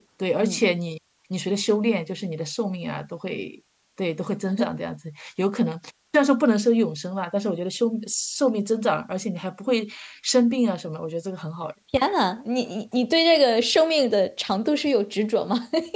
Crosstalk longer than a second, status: none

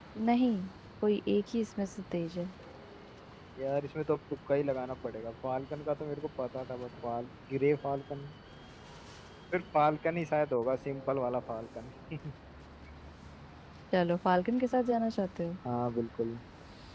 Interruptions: none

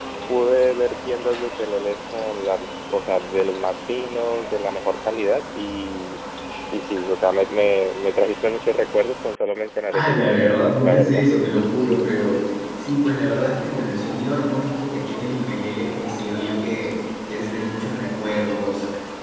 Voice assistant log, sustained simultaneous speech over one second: present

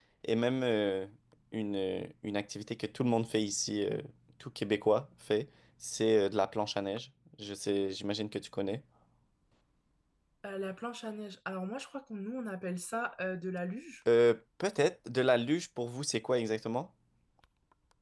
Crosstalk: none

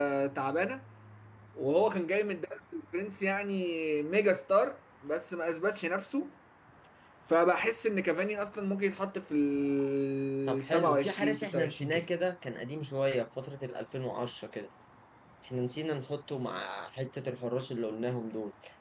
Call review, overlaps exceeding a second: present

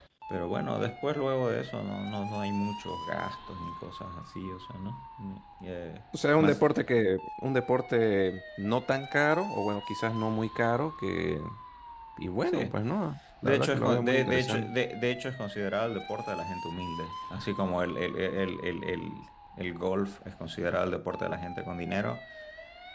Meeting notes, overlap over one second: present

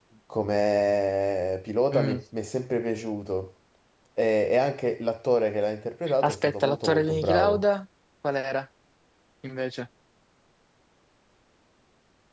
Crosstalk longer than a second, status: present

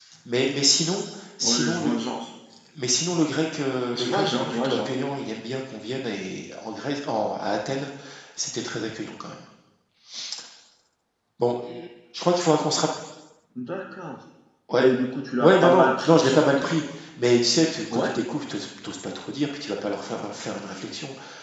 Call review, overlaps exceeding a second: present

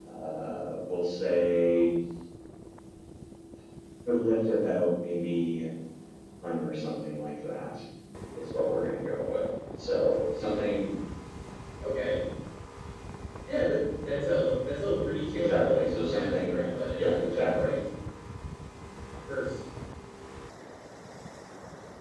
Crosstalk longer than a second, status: present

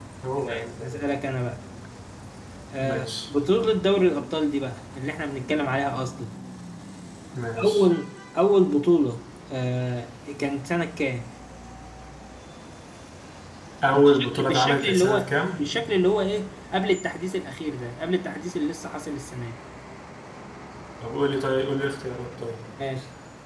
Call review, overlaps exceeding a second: present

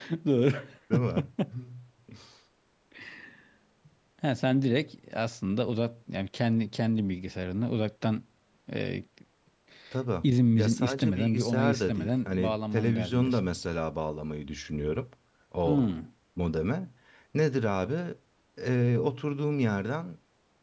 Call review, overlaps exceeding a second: present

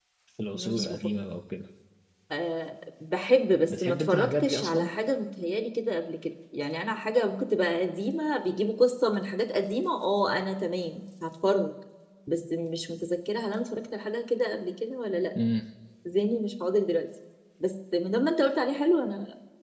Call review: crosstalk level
present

